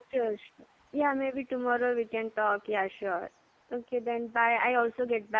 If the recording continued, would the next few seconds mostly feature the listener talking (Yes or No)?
No